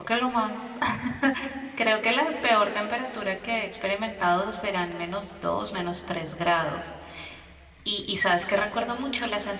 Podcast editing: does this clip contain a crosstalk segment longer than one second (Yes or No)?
No